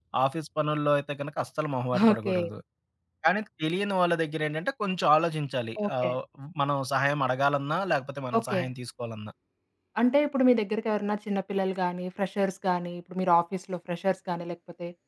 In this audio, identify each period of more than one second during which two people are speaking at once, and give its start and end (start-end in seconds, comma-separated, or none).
none